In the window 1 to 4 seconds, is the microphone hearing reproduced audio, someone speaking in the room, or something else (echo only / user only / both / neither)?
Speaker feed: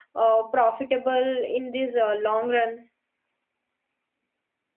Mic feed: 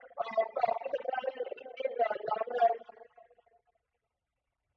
echo only